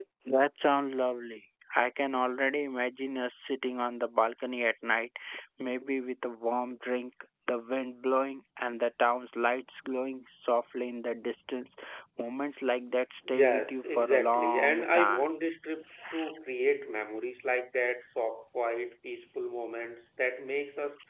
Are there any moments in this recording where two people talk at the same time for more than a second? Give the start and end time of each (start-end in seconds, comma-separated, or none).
13.3-15.3